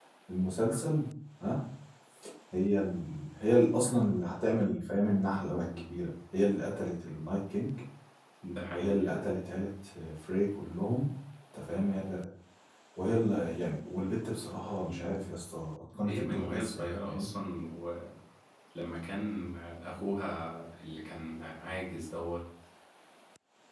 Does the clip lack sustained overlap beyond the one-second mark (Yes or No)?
No